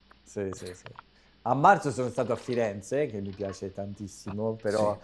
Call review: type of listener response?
listening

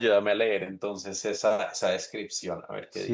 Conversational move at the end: taking over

